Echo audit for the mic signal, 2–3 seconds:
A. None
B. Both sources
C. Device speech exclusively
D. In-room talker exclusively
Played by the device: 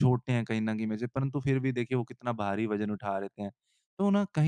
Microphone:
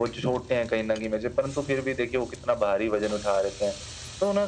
C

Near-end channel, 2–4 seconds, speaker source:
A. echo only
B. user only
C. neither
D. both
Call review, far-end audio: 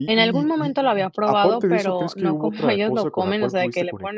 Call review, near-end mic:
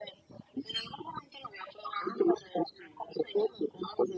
A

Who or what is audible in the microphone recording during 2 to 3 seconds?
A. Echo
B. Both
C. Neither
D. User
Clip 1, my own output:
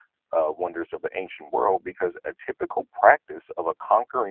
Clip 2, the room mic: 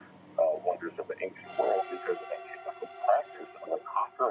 A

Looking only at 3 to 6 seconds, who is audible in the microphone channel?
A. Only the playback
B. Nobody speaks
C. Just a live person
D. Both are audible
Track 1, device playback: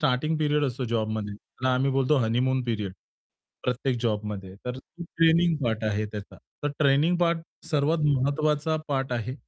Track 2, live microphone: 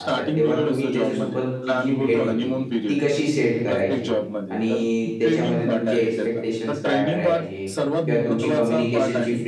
D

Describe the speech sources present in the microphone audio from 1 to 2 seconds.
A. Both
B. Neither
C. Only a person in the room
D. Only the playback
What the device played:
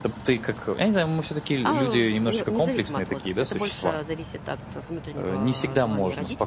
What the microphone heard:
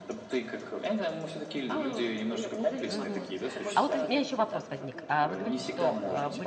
D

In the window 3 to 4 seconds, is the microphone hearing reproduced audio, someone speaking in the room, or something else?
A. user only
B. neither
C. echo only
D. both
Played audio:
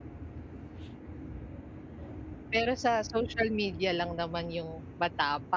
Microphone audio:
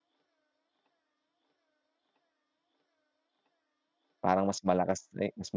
B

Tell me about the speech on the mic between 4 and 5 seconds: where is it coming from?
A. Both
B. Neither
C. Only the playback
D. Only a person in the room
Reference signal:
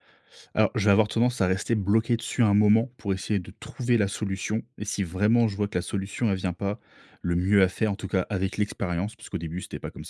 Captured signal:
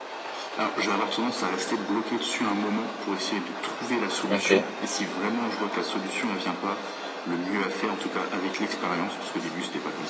A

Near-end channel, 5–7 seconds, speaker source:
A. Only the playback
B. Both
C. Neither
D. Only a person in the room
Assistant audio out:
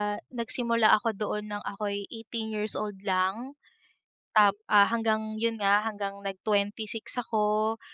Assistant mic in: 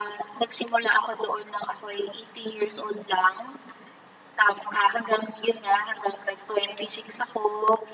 A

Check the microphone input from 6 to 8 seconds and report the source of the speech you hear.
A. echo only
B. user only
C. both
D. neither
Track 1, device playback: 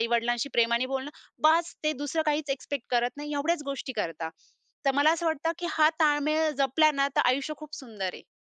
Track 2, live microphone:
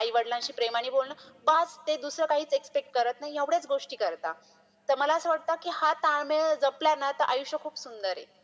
A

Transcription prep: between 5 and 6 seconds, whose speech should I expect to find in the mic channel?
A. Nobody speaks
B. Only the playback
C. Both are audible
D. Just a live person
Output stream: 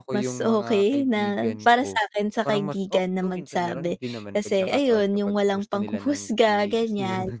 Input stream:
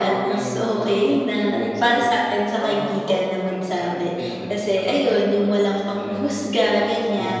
B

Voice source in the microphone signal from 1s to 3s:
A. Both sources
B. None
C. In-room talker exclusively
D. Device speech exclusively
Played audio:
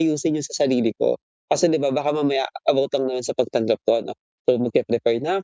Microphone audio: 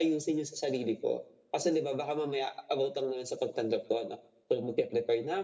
D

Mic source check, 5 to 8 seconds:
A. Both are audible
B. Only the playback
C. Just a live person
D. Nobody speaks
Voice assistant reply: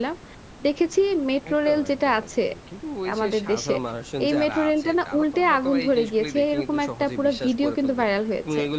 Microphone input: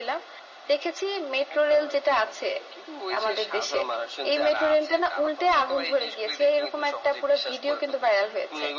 B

